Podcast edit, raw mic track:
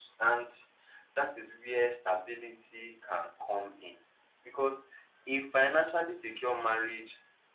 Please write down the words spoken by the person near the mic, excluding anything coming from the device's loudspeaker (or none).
none